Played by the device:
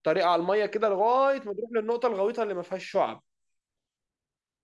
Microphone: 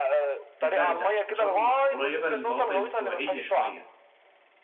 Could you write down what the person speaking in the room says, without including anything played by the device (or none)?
الباردة فشرم قريبة للمناطق الاستوائية شوية